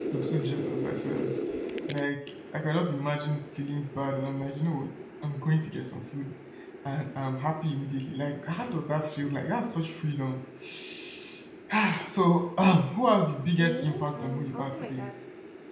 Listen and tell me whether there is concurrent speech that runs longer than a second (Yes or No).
Yes